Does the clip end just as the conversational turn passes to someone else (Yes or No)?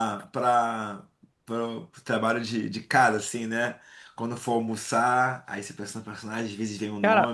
Yes